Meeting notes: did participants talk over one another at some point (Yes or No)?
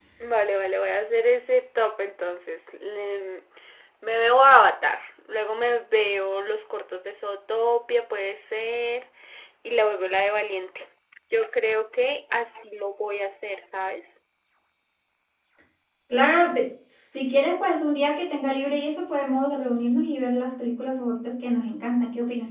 No